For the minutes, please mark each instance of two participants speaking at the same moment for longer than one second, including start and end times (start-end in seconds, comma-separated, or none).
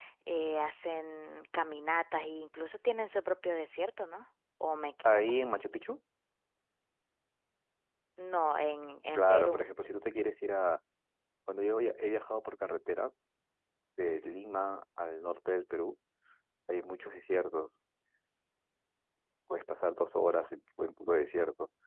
none